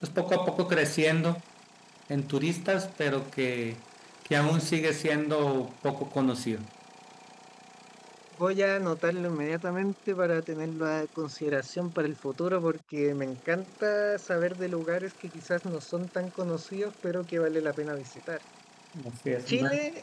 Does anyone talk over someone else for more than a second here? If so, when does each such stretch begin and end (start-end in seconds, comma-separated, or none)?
none